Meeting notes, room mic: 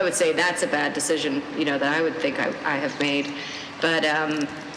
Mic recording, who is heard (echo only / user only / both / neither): echo only